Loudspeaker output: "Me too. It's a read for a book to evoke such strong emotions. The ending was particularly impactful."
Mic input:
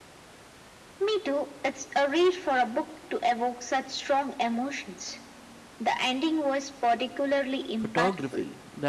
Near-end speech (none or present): present